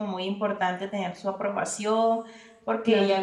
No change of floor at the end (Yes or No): Yes